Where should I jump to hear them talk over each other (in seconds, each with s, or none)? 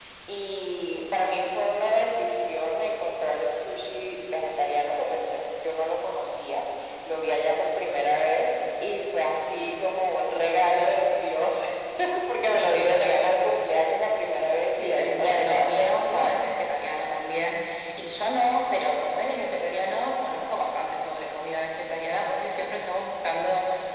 14.8 s